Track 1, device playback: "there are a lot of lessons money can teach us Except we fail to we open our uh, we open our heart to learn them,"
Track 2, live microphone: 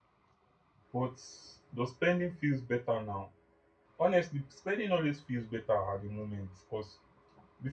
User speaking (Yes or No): Yes